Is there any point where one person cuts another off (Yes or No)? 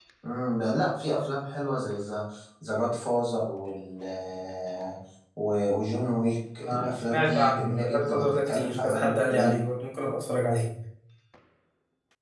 Yes